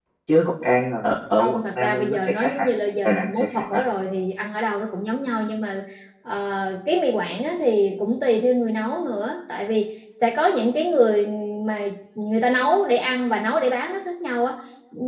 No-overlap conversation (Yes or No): No